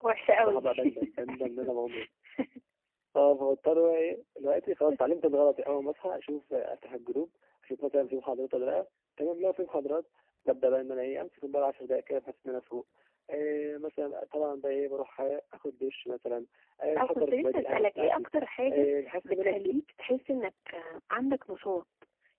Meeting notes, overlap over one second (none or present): present